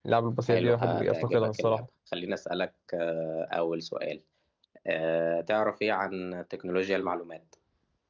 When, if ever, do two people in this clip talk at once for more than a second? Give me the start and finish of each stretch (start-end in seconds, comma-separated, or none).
0.5-1.8